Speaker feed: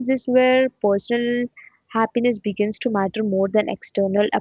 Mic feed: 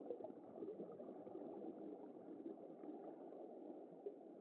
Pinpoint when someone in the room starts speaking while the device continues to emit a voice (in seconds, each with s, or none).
none